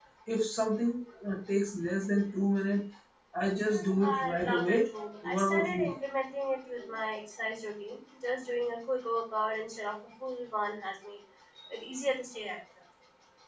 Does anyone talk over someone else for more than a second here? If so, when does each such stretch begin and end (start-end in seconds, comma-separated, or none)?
4.0-5.9